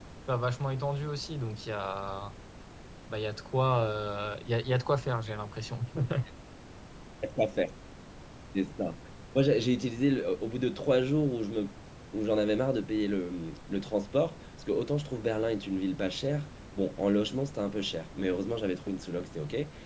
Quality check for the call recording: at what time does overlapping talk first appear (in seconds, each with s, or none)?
none